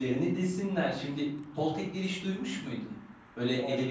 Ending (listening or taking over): listening